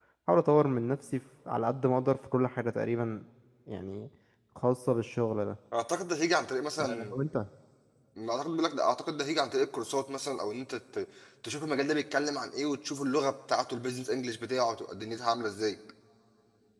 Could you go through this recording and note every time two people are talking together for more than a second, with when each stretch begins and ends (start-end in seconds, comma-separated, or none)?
none